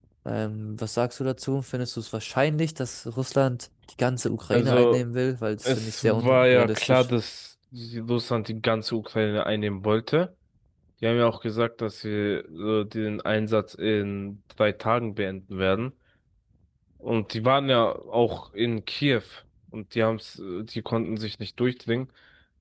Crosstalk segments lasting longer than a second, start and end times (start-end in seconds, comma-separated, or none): 5.6-7.1